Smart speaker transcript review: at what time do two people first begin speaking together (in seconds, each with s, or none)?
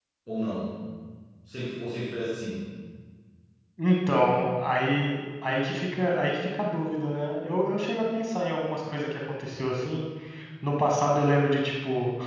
none